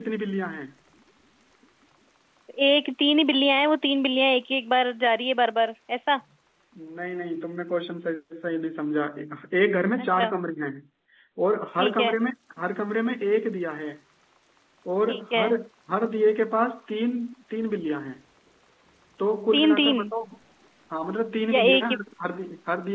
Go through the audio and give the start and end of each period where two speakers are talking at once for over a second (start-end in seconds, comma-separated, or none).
none